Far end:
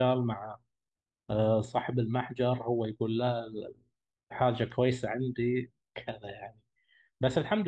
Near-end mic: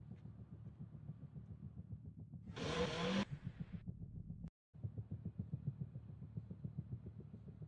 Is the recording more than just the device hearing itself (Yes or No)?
No